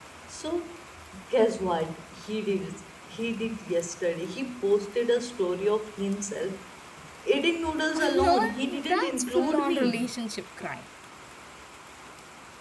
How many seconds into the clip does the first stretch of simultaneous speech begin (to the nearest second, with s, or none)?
8 s